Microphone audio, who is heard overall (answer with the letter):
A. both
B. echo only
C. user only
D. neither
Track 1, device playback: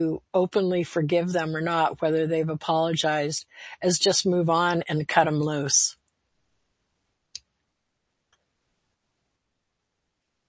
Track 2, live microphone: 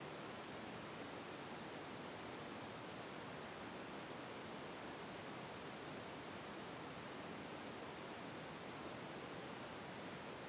D